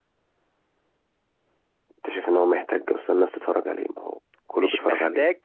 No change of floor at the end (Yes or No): No